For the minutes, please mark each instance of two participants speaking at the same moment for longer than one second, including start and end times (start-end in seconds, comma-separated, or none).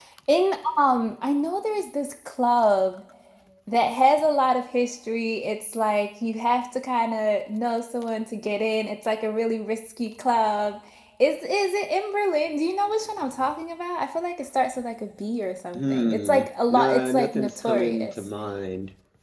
15.7-18.2